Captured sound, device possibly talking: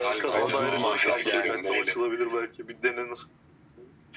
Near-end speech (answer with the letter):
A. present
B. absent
A